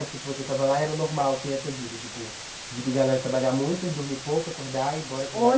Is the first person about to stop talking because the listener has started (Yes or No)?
Yes